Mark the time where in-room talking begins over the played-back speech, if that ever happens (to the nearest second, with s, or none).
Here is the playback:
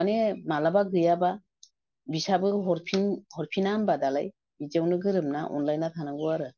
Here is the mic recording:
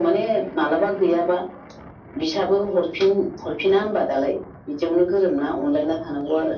none